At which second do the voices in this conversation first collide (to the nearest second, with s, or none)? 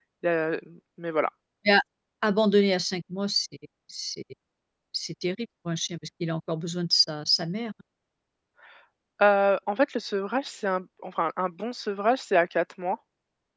none